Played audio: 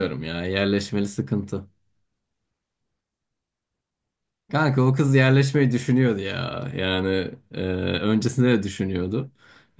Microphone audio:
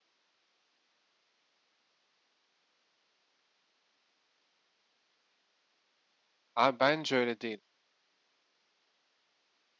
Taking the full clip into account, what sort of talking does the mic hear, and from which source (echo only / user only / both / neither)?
user only